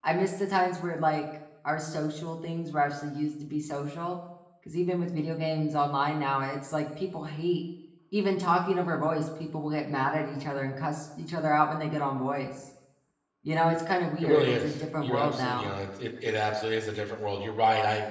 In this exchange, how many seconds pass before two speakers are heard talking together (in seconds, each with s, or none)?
14.2 s